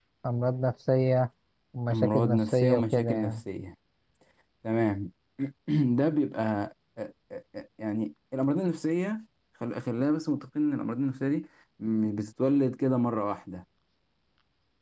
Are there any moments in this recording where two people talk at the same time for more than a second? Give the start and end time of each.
1.9-3.4

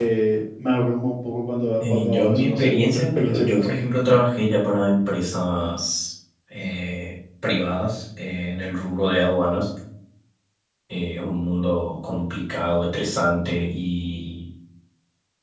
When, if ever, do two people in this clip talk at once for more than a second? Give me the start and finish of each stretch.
1.8-3.8

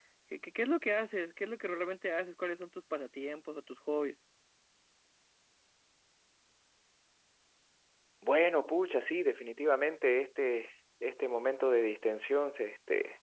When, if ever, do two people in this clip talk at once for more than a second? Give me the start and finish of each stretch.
none

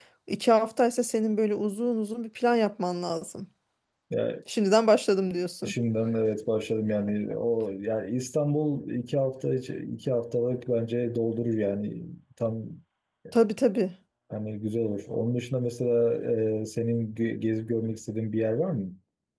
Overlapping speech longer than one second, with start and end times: none

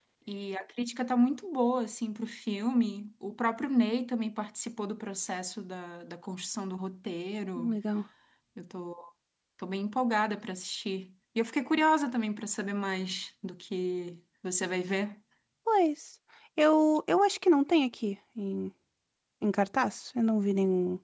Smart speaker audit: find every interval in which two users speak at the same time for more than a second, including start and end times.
none

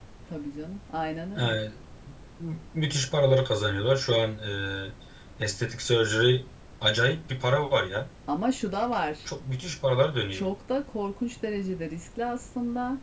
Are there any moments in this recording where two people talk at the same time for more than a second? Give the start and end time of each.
none

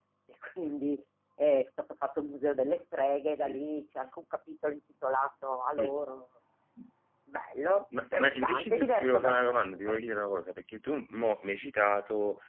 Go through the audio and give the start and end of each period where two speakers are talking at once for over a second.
8.2-10.0

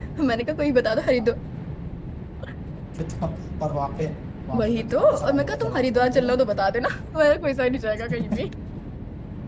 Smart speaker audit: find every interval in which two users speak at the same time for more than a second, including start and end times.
4.6-6.3

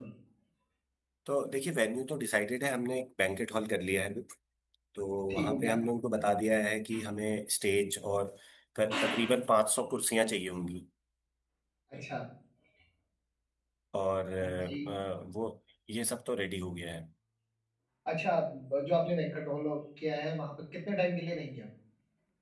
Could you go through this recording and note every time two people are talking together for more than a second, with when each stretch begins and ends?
none

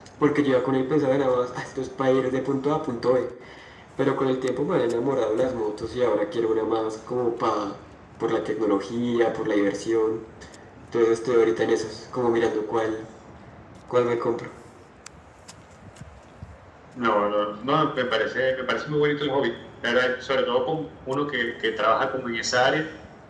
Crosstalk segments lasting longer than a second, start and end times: none

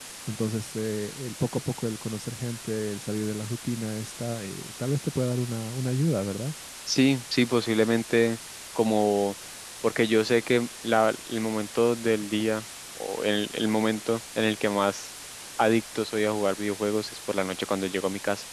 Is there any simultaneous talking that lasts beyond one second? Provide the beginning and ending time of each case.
none

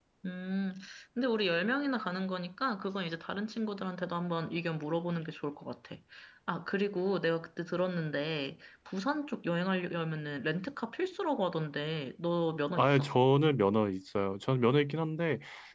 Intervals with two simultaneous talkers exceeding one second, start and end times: none

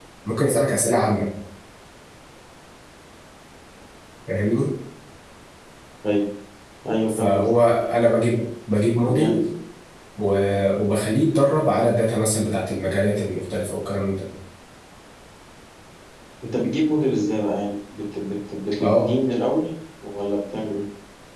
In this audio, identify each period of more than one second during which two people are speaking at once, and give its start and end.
none

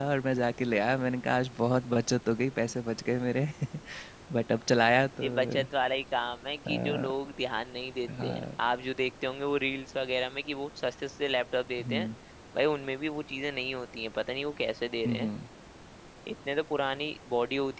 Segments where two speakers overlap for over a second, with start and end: none

